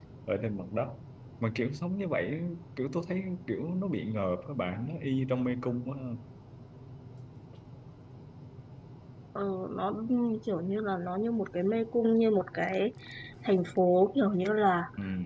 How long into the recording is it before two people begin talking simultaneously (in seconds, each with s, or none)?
none